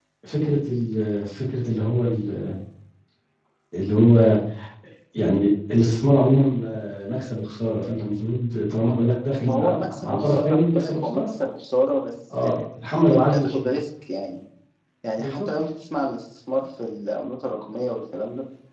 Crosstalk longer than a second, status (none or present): present